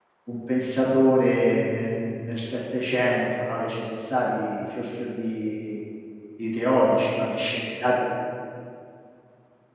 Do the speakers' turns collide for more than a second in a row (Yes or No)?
No